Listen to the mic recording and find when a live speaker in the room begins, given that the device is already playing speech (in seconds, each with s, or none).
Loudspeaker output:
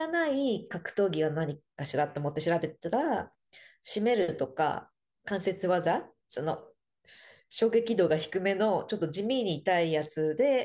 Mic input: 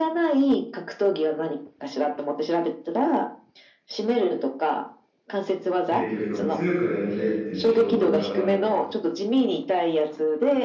5.9 s